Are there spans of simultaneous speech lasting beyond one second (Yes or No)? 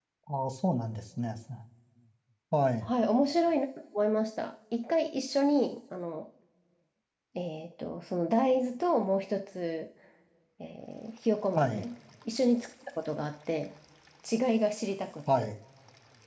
No